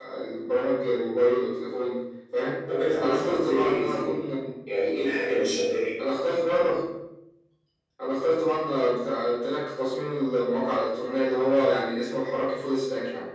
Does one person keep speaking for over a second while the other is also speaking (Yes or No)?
Yes